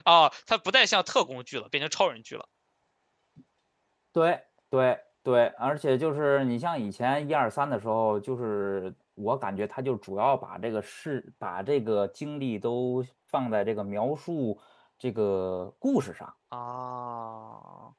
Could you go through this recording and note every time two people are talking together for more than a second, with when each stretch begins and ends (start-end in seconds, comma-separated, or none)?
none